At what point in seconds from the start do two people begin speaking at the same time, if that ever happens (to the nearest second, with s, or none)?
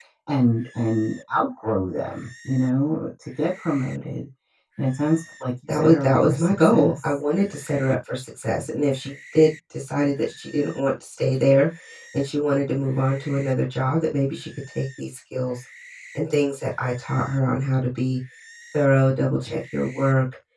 6 s